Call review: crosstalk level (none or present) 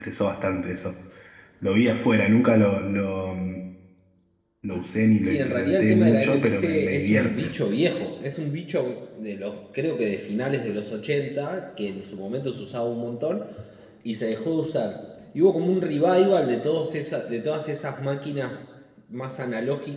present